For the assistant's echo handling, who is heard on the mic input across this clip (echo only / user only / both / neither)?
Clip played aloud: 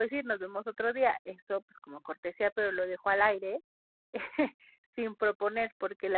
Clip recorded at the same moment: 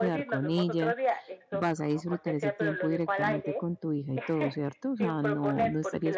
both